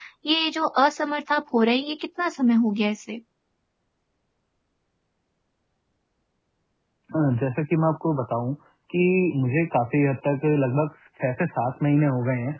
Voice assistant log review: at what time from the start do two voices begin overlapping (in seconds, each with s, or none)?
none